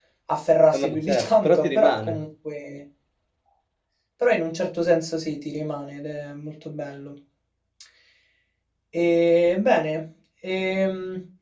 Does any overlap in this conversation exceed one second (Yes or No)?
Yes